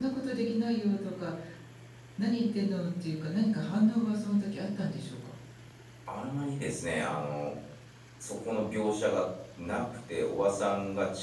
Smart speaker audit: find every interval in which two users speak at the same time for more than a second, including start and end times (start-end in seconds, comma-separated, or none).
none